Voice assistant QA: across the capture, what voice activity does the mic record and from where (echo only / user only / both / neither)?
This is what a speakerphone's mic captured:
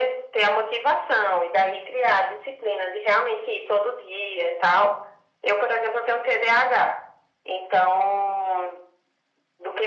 echo only